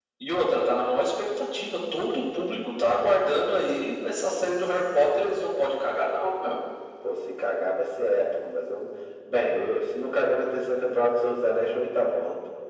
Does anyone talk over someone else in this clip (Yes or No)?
No